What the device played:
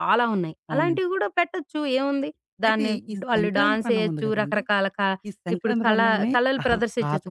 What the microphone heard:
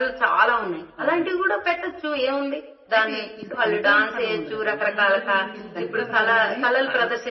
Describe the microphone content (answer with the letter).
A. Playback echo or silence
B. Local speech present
B